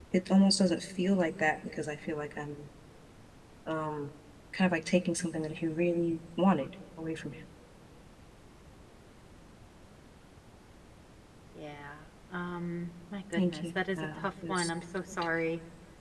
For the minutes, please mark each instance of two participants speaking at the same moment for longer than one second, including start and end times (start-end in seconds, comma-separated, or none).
13.3-14.7